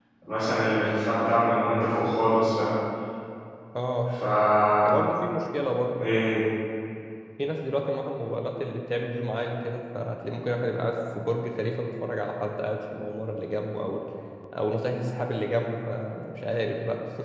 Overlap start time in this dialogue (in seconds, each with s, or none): none